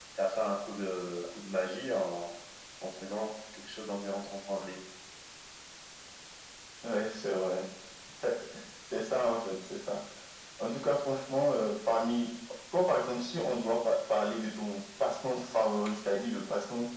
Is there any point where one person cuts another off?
No

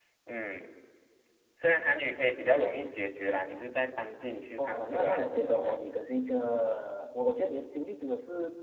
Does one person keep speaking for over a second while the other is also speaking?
Yes, from 4.6 s

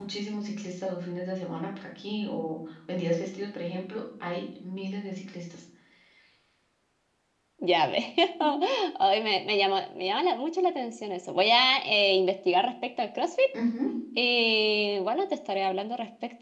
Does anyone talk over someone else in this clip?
No

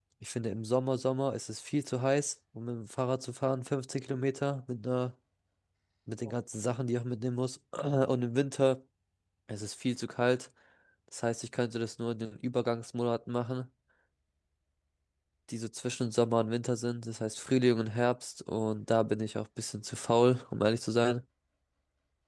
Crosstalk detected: No

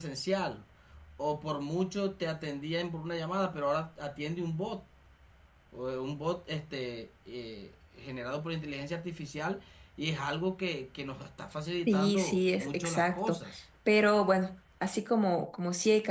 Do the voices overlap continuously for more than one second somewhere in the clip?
Yes, from 11.9 s

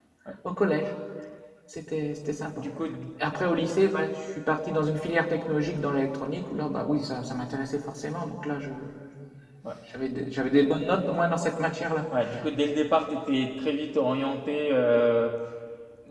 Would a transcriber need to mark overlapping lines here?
No

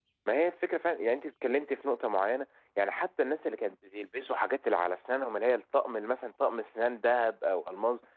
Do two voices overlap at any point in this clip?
No

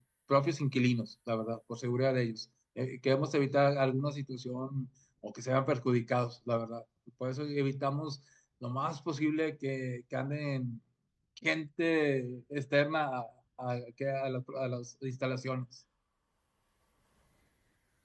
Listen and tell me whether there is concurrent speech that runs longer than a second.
No

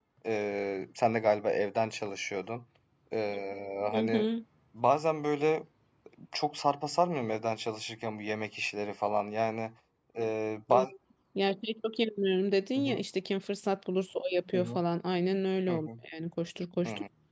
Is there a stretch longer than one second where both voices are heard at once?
No

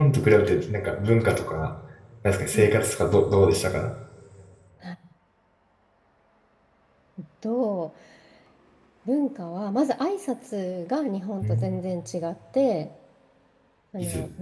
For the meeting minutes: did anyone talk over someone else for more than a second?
No

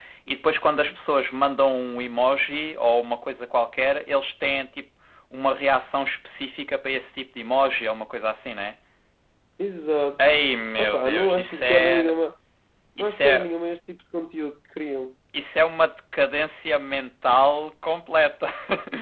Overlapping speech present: Yes, from 10.8 s

